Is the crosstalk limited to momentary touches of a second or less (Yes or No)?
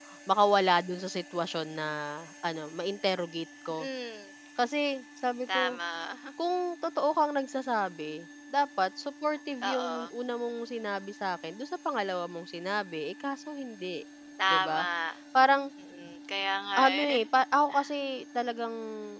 Yes